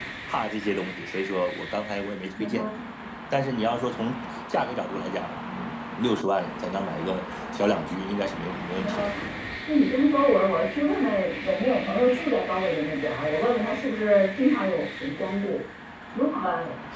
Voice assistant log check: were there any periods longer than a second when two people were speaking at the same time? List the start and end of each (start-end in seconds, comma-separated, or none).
none